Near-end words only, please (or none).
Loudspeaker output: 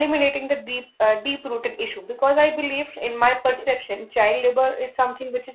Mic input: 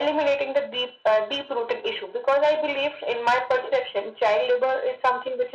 none